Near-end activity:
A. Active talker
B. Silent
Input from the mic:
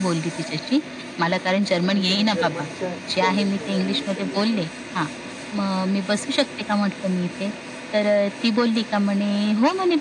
A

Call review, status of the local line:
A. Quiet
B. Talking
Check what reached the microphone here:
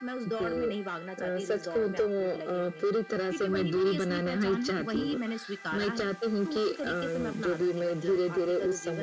A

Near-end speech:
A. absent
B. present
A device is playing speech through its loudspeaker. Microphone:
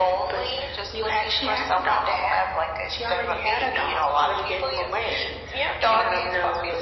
A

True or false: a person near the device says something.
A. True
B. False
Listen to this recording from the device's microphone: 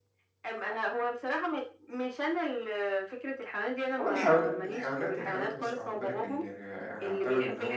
A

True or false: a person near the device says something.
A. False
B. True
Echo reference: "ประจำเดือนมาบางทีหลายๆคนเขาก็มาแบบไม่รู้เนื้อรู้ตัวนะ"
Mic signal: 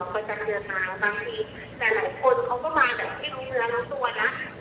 A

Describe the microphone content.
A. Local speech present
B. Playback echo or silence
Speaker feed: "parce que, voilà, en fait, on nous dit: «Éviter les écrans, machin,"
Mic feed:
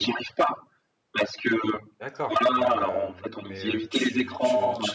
A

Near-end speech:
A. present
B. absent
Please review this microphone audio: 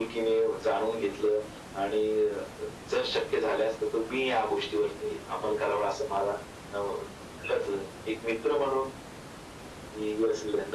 B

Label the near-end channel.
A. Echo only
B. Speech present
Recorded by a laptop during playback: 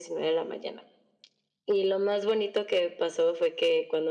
A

